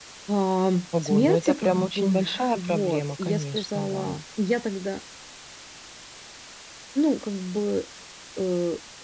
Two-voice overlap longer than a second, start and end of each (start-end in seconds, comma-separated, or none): 1.0-4.2